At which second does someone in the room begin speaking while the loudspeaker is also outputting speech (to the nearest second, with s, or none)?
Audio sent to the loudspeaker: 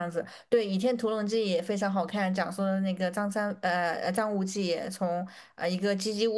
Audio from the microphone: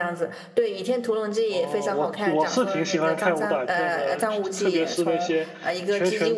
1 s